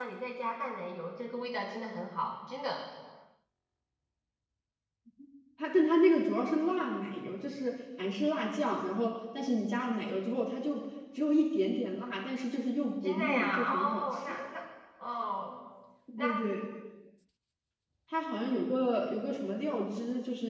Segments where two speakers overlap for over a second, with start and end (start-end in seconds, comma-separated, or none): 13.0-14.4